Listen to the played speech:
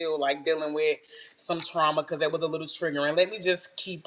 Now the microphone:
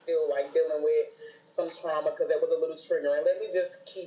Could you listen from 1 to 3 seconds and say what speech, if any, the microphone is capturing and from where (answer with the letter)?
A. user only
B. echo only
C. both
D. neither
B